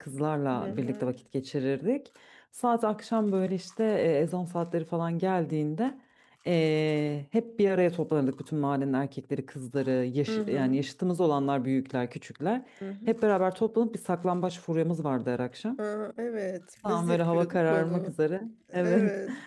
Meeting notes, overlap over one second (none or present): present